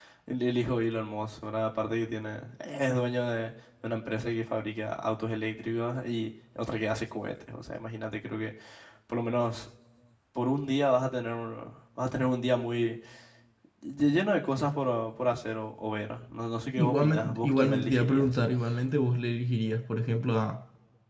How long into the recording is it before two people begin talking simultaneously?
16.8 s

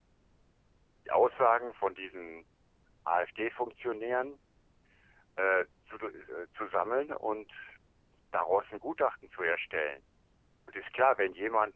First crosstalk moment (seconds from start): none

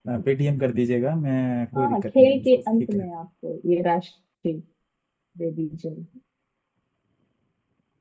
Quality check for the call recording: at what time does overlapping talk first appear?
1.8 s

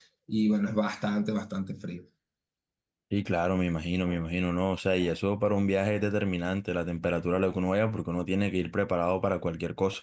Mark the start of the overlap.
none

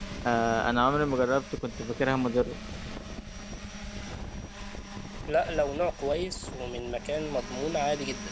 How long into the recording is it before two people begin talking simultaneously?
none

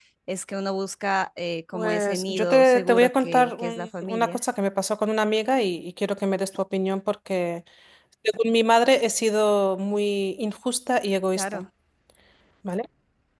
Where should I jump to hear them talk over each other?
1.7 s

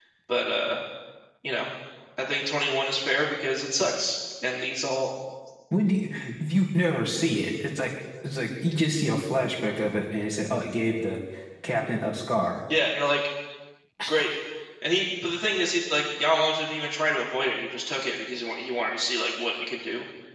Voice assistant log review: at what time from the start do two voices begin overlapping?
none

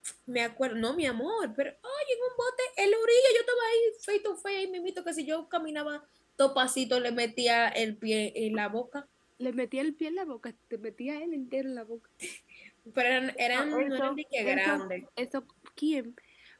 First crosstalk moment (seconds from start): 13.5 s

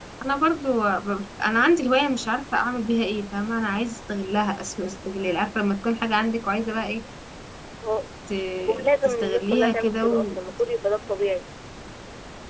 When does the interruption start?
8.7 s

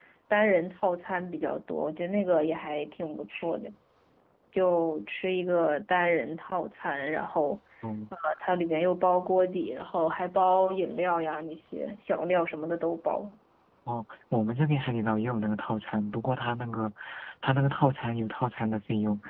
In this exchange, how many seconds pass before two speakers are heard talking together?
none

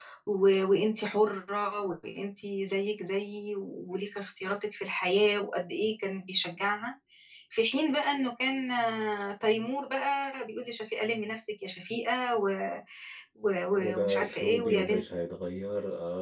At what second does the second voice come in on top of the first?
13.8 s

